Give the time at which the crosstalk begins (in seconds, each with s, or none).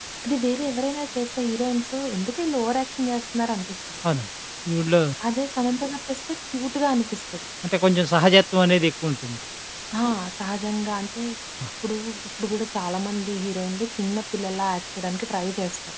none